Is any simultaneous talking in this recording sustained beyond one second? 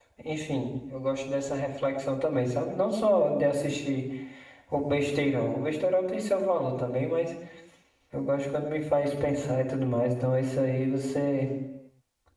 No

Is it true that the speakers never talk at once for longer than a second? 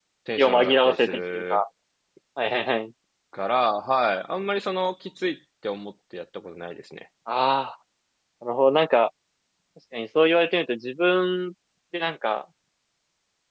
No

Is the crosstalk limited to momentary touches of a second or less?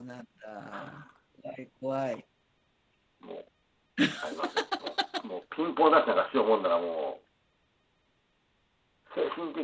Yes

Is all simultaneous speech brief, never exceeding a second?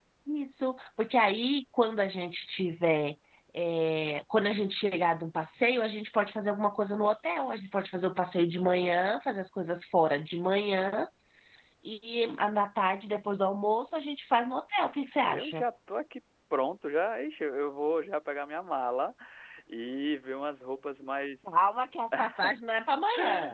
Yes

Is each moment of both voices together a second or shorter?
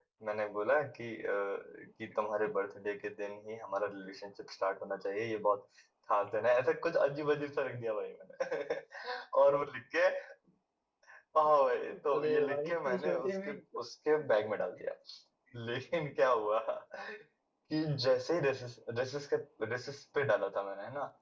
No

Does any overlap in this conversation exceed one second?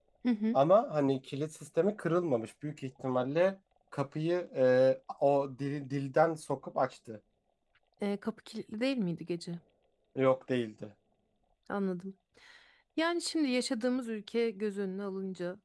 No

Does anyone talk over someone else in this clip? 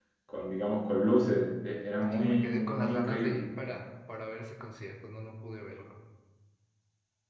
Yes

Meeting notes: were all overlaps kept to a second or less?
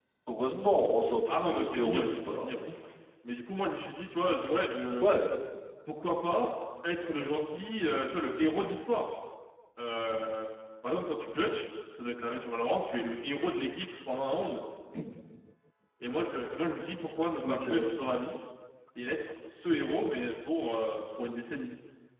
No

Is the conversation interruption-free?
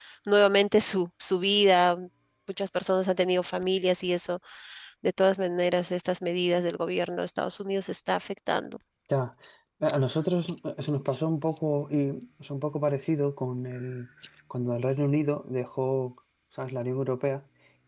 Yes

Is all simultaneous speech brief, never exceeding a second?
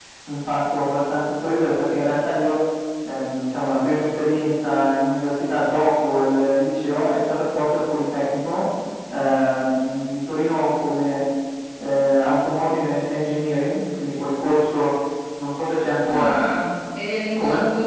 Yes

